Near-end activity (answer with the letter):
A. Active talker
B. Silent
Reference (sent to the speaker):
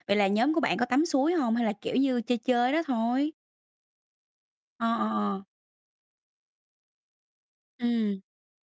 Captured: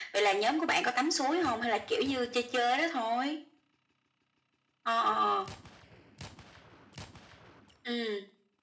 B